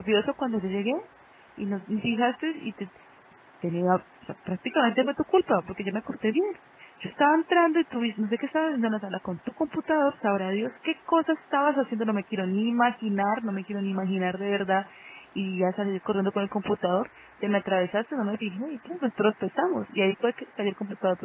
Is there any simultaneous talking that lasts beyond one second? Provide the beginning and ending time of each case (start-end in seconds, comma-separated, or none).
none